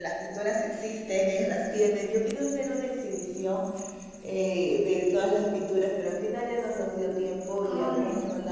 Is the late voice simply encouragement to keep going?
Yes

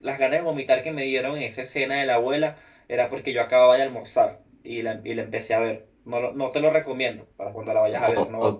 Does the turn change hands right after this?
Yes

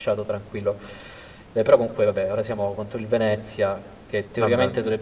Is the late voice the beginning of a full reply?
No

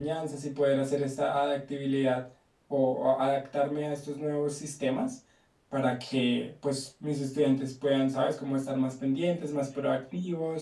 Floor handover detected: No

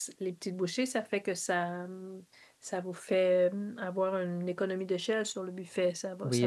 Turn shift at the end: Yes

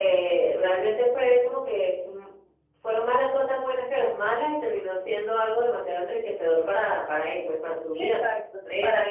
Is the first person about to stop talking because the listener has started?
Yes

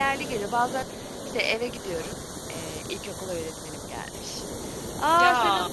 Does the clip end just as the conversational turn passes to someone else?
No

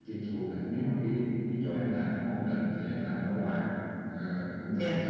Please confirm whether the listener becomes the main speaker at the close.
No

